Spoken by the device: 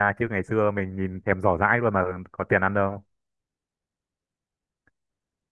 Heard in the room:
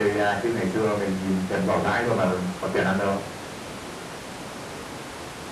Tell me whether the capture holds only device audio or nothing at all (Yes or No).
Yes